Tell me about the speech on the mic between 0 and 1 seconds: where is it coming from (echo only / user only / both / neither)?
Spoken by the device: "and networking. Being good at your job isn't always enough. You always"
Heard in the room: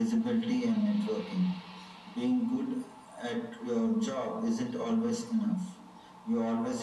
echo only